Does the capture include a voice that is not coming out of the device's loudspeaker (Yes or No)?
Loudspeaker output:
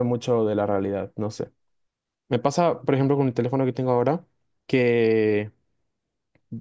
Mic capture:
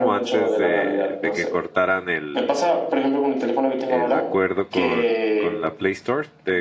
Yes